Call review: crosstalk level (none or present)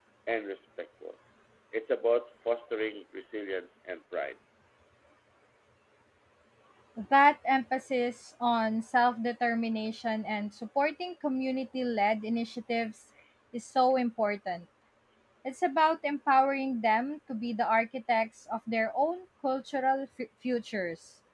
none